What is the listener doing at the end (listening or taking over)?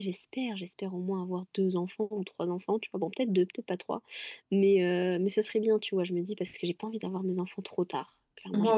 taking over